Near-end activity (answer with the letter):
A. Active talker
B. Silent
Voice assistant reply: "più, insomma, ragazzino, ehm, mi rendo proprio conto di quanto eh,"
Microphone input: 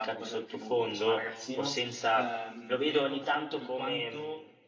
A